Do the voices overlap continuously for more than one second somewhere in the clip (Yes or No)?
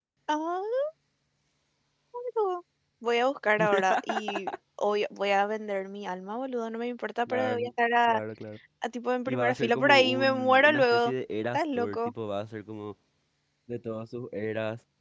Yes